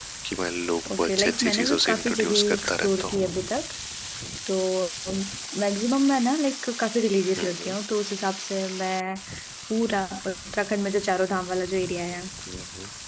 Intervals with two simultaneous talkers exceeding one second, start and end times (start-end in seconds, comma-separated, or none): 1.0-3.1